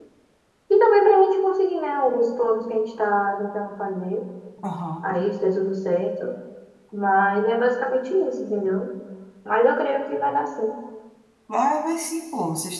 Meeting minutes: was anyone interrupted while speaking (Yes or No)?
No